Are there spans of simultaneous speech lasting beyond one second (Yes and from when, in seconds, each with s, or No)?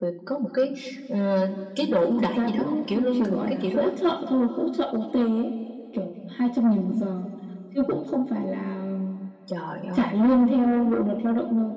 Yes, from 2.2 s